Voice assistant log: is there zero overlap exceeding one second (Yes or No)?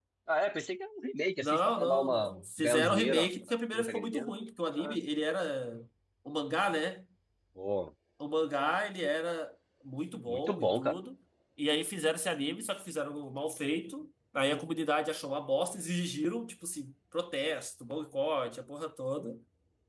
No